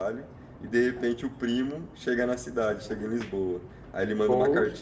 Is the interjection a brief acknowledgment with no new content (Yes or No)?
Yes